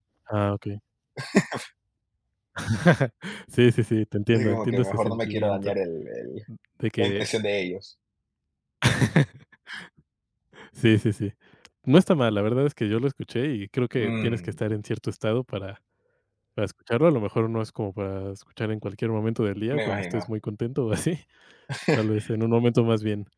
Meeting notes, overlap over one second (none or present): present